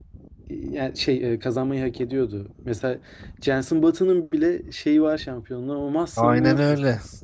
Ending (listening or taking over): taking over